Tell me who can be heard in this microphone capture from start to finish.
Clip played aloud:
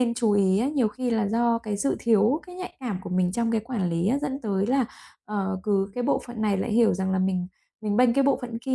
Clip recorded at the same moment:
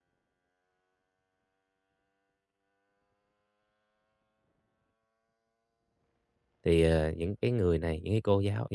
user only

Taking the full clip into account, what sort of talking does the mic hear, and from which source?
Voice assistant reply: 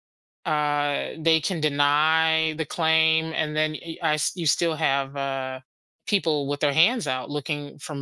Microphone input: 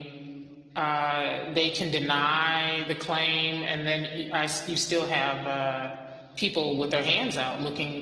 echo only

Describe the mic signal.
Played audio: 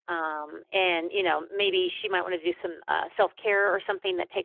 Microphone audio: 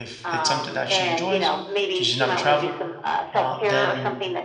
both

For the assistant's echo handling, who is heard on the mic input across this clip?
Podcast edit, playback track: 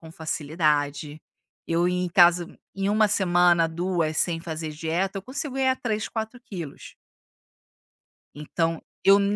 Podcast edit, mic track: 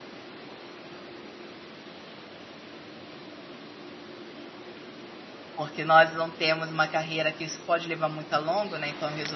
user only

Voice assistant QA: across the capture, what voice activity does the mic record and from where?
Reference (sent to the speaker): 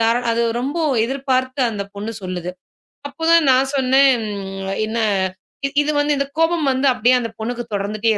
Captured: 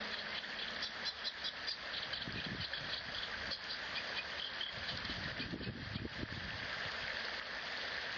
neither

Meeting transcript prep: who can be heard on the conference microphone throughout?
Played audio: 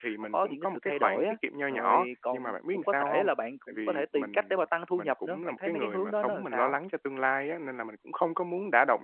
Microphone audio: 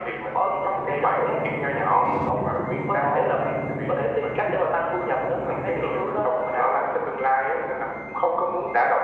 echo only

